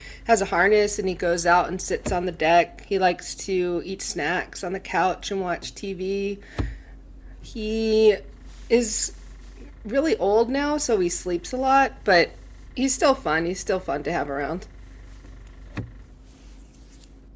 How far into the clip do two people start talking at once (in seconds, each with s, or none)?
none